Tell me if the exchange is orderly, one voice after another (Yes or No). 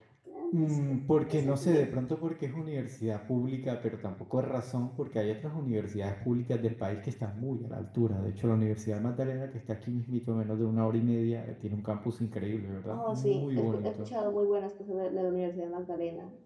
No